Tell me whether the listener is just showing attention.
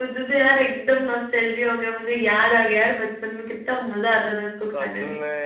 No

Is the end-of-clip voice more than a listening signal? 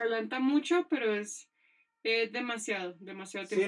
Yes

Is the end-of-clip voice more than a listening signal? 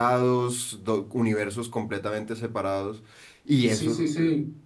Yes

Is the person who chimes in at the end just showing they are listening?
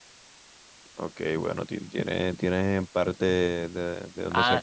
No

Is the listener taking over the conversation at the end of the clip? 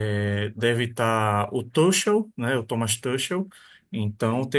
No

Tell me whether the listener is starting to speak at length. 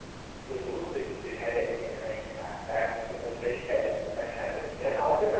Yes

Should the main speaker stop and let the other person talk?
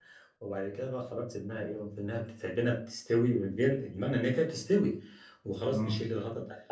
No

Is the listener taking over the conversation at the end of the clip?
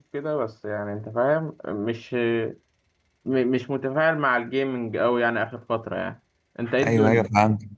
Yes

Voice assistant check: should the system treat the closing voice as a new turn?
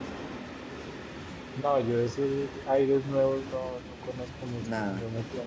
No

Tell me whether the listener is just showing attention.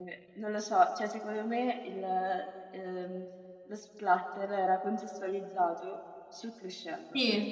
No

